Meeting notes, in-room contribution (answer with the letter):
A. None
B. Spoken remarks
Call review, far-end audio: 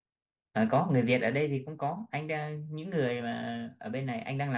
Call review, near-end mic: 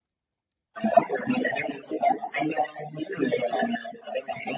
A